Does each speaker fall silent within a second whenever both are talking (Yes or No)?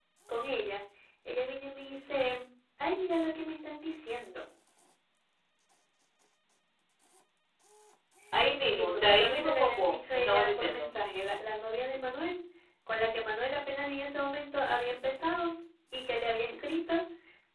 No